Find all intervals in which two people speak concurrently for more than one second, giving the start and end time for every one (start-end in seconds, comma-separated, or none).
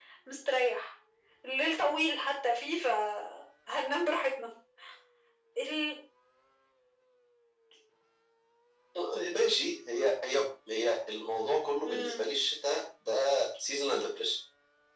none